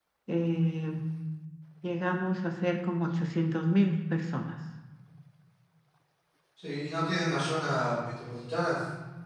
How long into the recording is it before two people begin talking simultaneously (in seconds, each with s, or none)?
none